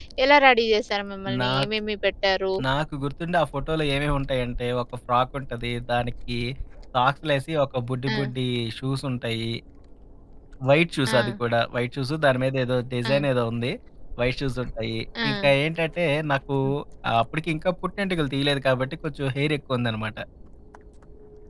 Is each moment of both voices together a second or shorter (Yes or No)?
Yes